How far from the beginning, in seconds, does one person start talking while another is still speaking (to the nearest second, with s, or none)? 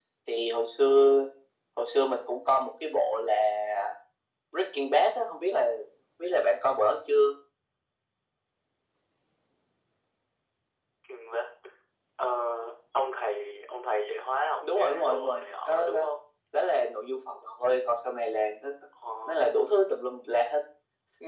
15 s